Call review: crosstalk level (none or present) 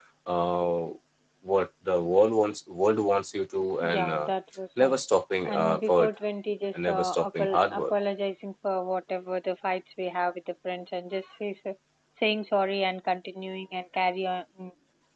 present